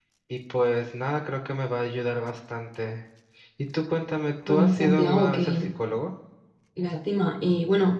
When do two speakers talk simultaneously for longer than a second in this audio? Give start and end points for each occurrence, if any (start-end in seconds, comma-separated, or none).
4.5-5.7